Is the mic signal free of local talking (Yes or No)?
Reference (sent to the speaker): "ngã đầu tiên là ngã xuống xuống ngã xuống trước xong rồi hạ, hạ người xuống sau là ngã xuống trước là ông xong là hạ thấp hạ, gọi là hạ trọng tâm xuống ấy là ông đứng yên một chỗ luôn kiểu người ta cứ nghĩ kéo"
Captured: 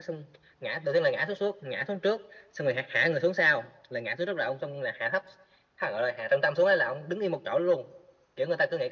Yes